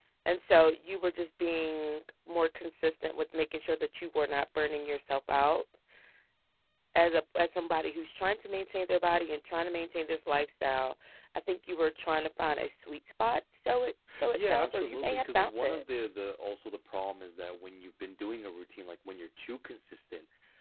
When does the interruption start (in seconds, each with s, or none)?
14.1 s